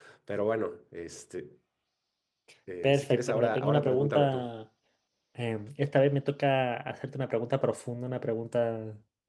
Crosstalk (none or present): present